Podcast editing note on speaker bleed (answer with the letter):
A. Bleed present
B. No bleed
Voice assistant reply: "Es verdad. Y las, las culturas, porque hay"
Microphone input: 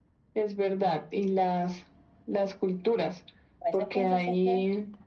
A